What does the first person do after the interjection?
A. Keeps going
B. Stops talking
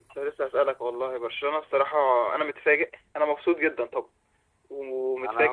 B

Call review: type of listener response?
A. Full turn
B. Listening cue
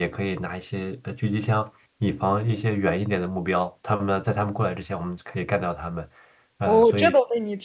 A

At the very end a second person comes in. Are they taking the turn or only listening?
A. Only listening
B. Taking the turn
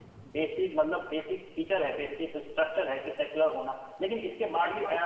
A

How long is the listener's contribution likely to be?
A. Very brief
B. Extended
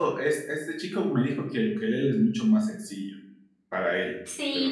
B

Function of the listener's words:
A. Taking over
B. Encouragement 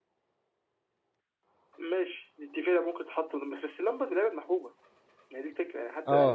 A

